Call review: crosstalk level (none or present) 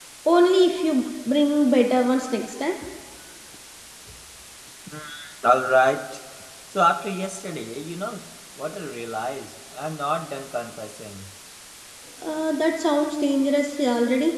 none